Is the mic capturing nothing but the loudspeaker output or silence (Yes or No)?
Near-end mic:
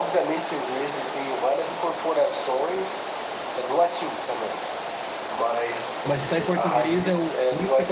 No